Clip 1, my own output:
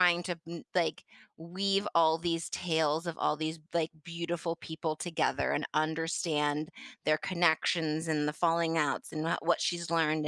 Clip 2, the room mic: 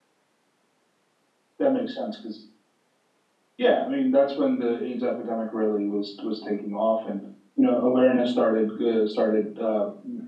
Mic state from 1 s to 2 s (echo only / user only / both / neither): user only